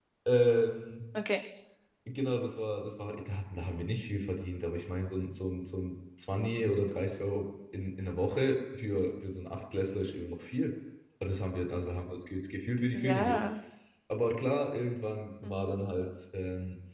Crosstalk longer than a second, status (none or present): none